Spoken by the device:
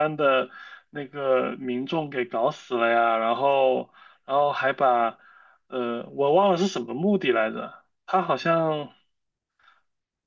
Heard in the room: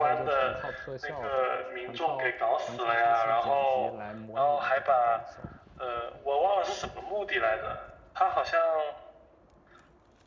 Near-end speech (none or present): present